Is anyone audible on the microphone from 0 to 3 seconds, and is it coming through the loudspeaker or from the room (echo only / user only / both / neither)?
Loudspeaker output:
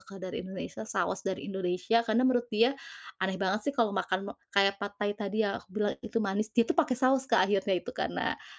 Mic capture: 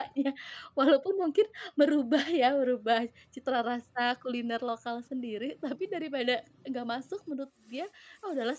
user only